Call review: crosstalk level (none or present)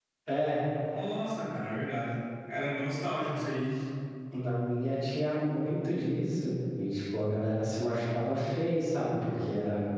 none